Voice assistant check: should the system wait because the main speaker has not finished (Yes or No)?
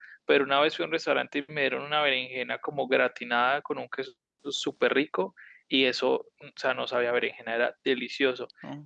Yes